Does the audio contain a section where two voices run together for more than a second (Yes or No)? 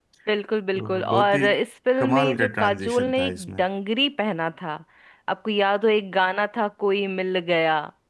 Yes